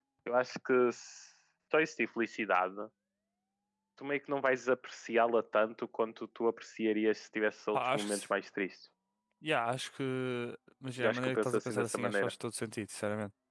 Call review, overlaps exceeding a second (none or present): present